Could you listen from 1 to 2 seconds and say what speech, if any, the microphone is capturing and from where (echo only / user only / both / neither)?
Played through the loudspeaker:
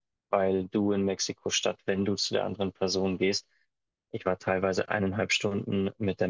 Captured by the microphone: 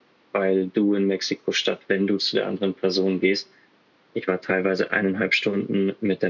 echo only